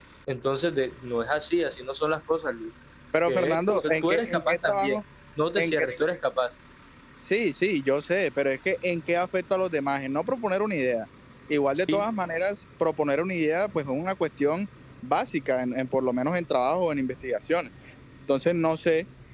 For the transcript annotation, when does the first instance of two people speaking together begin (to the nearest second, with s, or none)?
3 s